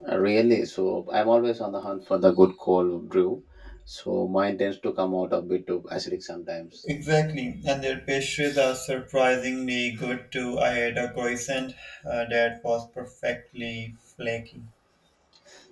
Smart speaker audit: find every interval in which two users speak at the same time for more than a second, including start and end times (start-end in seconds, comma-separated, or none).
none